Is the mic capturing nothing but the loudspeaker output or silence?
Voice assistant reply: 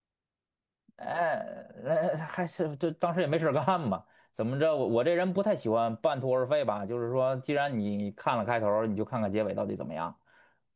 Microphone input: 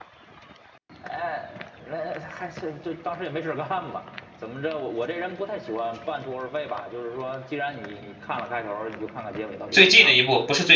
No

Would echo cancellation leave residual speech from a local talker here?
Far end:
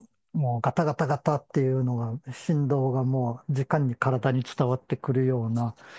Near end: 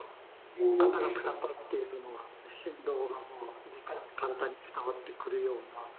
Yes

